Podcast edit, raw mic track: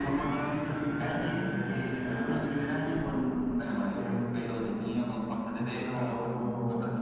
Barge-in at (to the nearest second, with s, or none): none